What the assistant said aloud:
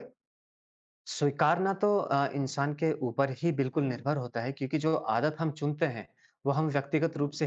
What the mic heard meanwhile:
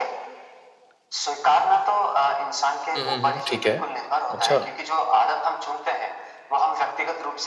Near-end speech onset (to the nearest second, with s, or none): 3 s